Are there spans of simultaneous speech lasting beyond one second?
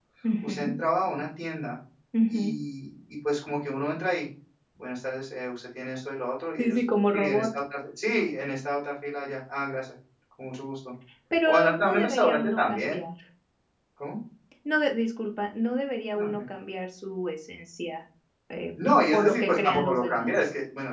Yes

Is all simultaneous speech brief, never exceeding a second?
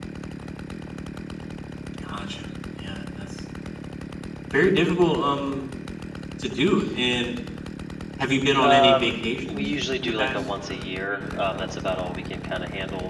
No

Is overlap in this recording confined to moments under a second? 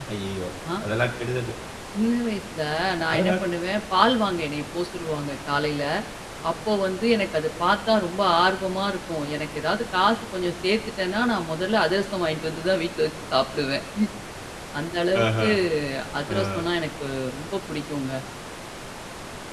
Yes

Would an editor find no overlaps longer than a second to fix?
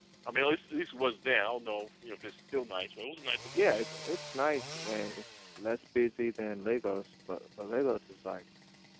Yes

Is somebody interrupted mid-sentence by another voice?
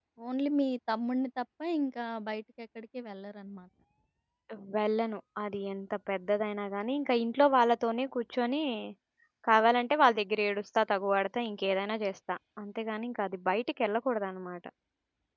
No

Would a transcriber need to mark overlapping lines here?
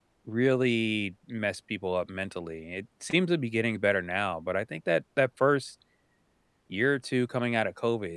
No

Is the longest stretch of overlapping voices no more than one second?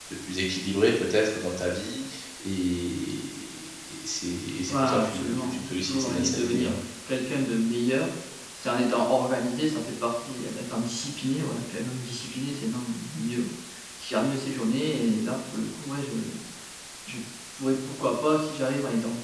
No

